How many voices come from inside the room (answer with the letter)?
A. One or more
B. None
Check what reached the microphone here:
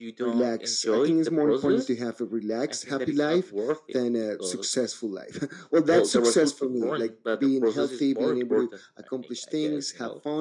B